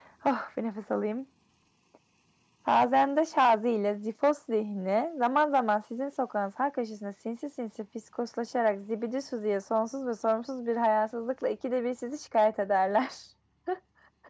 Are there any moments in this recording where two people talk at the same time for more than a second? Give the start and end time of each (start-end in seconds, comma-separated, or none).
none